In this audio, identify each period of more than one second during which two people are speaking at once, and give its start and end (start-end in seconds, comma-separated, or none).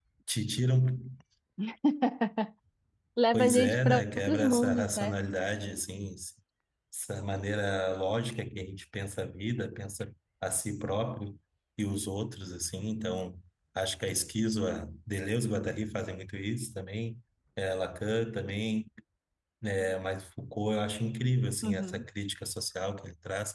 3.3-5.1